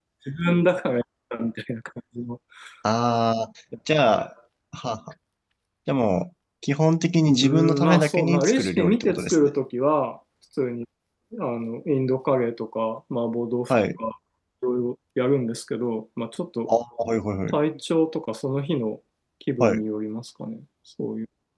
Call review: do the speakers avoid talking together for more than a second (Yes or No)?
No